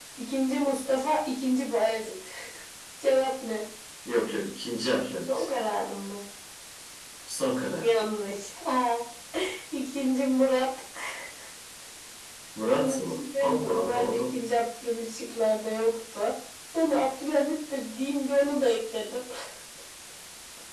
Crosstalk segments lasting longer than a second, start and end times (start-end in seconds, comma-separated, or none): 12.8-14.2